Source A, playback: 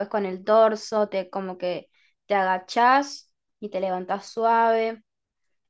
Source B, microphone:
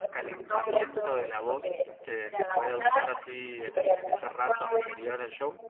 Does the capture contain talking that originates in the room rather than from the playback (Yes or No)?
Yes